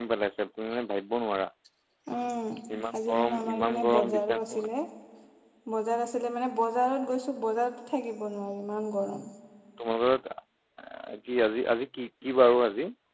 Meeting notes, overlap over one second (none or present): present